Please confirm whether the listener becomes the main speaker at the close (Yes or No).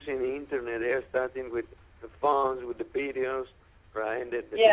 No